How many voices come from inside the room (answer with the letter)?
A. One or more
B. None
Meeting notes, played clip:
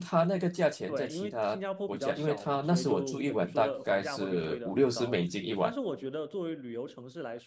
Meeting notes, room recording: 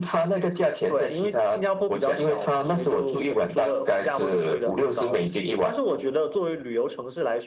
B